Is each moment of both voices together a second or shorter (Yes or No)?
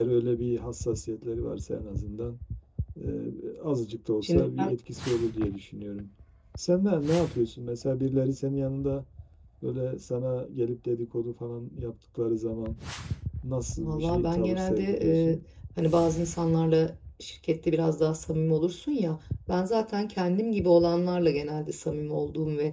No